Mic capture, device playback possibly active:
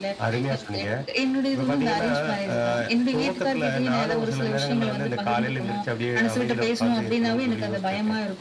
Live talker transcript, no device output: none

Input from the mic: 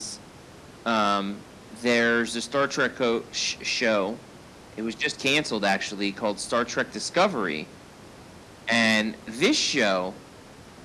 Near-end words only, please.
none

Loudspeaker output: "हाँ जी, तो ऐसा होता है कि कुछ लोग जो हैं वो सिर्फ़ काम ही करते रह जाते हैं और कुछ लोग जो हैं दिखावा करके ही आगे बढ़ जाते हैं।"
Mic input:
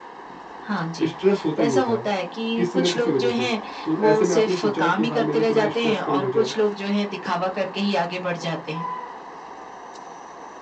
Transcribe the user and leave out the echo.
स्ट्रेस होता ही होता है, किसी ना किसी वजह से। तो ऐसे में आपने सोचा हो कि हाँ मेरा थोड़ा स्ट्रेस कम हो जाए।

